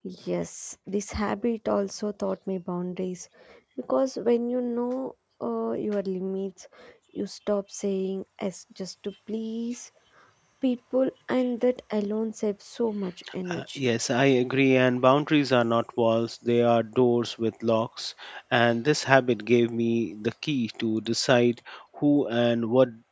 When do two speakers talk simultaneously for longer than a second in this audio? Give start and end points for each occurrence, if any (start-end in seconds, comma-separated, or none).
none